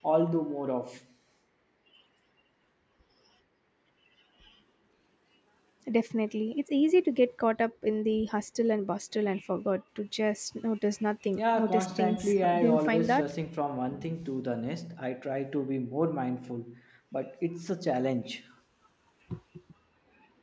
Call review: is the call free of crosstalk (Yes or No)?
No